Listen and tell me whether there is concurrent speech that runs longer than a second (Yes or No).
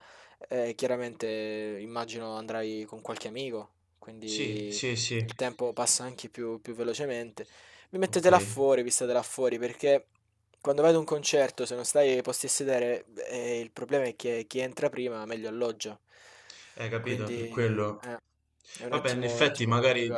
Yes